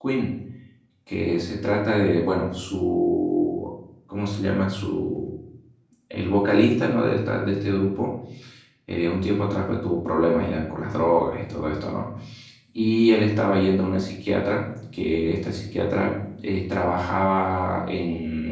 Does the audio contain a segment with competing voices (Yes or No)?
No